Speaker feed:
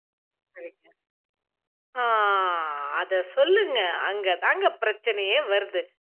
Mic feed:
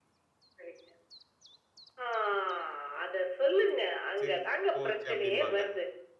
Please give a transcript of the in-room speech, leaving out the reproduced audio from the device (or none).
"சிரி போச்சு" அப்படிம்பாங்க.